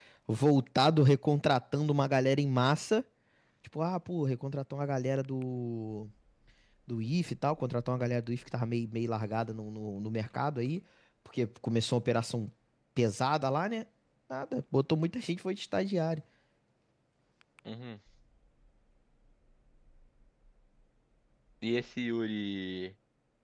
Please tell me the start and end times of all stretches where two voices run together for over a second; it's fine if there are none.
none

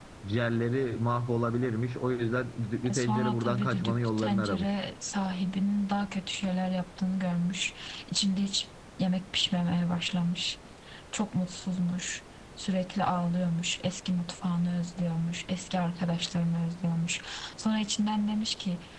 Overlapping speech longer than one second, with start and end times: 2.9-4.7

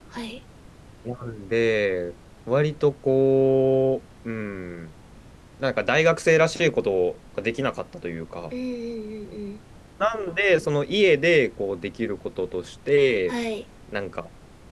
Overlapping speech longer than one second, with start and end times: none

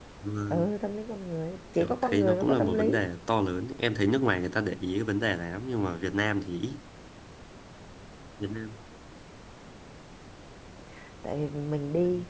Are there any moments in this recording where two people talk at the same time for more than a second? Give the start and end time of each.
1.8-3.0

